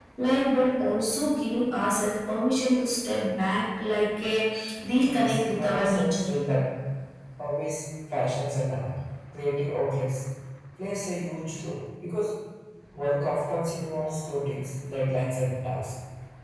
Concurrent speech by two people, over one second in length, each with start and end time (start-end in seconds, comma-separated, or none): 5.0-6.3